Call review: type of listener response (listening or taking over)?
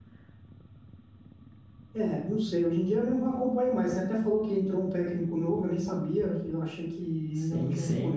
taking over